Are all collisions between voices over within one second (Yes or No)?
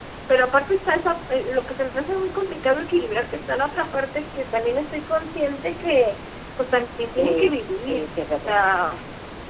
No